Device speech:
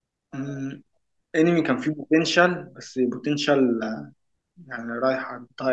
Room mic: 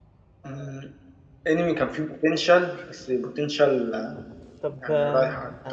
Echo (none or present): present